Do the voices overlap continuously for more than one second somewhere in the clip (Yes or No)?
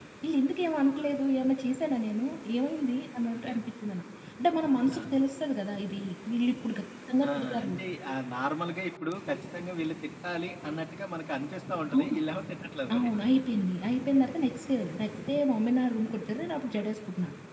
No